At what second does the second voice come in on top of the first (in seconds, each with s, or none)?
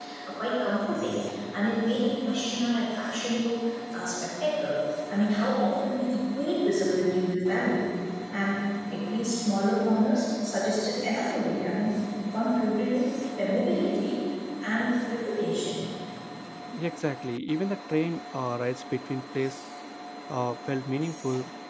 none